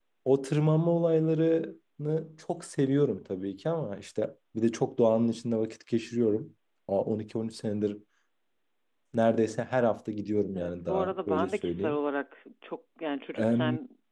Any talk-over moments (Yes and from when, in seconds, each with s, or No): Yes, from 10.6 s